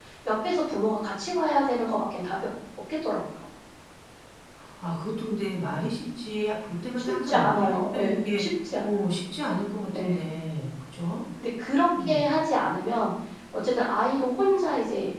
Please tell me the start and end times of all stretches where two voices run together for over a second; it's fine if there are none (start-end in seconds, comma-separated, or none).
7.0-8.4